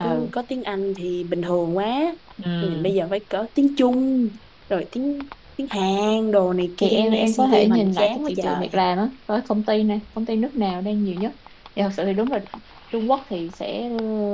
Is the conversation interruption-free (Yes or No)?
No